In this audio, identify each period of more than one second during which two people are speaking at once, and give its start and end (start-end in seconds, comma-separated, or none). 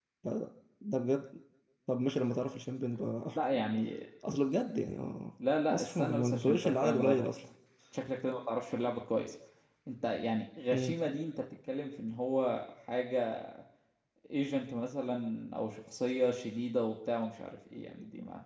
5.7-7.2